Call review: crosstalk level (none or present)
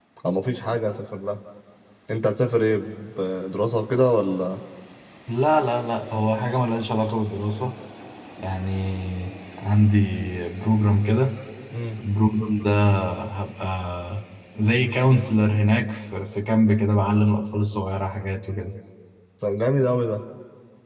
none